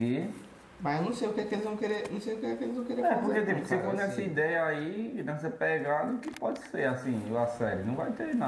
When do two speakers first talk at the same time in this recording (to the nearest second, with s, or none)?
3 s